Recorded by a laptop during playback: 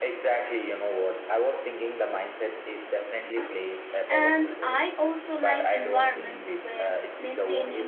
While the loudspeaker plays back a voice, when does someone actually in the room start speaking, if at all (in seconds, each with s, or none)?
4.1 s